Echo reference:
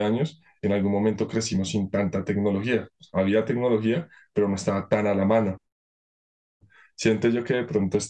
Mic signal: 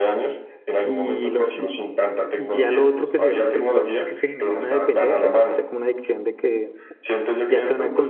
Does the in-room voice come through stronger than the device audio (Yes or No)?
Yes